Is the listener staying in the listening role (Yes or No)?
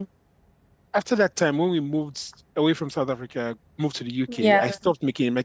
Yes